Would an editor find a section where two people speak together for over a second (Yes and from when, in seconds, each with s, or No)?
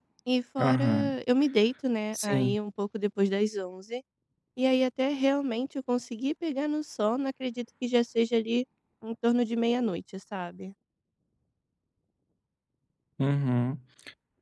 No